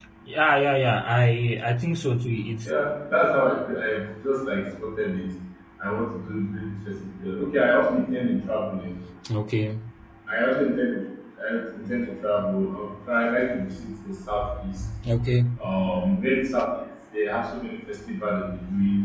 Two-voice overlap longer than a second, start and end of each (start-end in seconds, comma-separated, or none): none